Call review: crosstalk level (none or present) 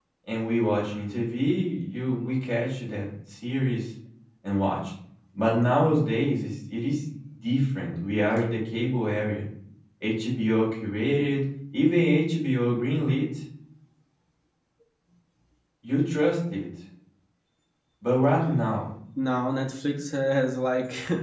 none